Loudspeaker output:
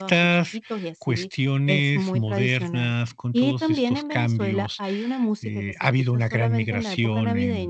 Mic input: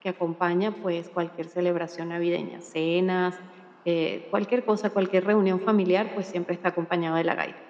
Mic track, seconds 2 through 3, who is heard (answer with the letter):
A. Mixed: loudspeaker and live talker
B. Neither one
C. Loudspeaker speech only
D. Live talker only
D